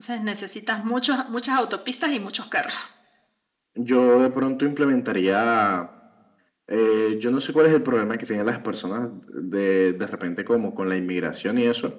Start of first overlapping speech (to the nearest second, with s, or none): none